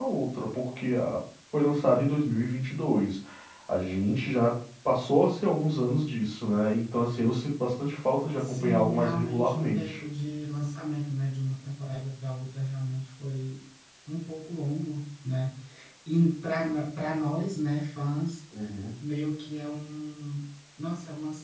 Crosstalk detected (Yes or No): Yes